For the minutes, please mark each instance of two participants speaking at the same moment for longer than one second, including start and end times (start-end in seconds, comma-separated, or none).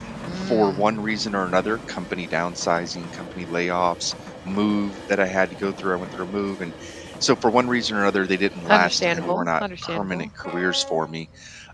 8.7-10.3